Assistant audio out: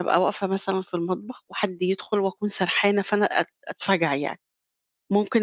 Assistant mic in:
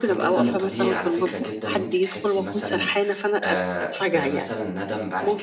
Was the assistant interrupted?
Yes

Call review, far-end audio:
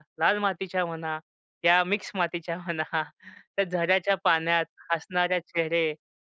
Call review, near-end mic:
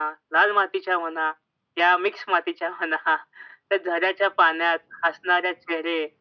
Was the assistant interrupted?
No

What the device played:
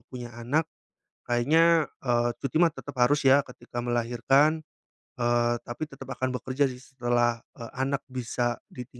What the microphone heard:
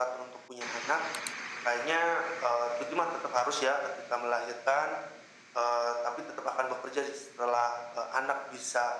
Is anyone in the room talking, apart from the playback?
No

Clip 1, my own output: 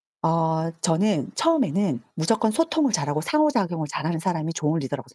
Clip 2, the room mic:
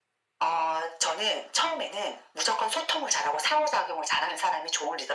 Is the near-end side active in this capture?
No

